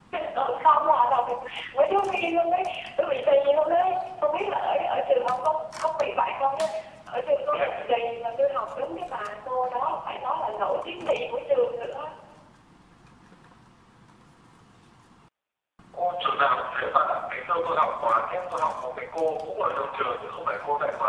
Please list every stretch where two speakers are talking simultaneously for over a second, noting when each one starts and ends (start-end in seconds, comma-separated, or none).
none